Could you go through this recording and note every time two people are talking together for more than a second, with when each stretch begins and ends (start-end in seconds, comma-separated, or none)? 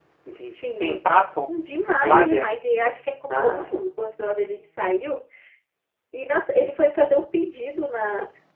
none